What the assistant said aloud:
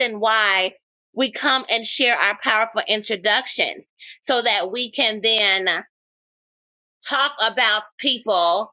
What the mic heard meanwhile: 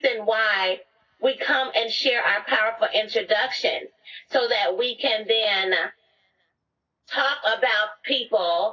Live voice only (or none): none